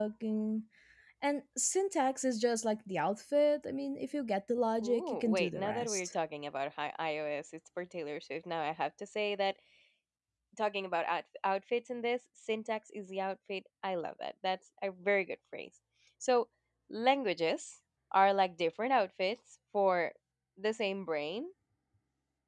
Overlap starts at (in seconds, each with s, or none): 4.8 s